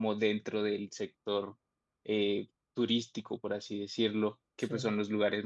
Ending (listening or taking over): listening